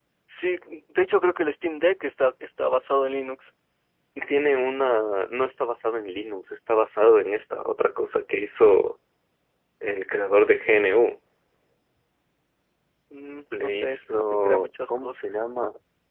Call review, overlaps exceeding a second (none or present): present